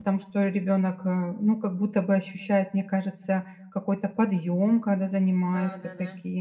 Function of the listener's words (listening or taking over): taking over